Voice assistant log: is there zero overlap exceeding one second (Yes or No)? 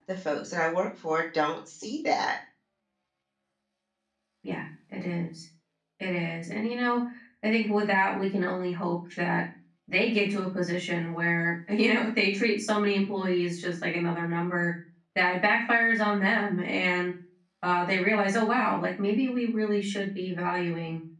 Yes